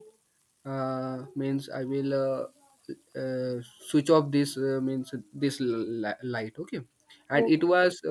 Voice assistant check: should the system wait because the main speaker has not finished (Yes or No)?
Yes